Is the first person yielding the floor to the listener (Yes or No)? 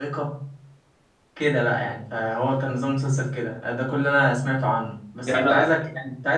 No